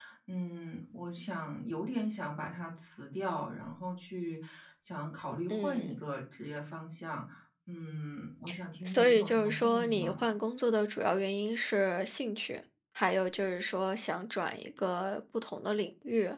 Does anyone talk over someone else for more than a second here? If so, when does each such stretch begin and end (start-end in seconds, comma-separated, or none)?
8.8-10.2